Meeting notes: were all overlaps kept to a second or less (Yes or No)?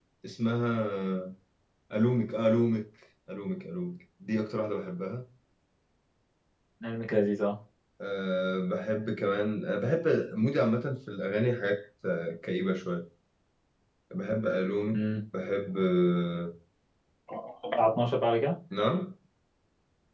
Yes